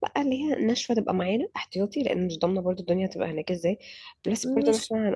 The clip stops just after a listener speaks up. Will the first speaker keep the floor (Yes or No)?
Yes